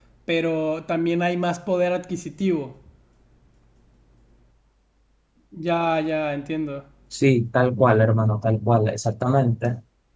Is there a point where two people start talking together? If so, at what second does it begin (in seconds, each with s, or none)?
none